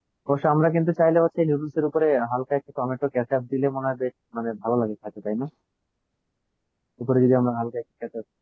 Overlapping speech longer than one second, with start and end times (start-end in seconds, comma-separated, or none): none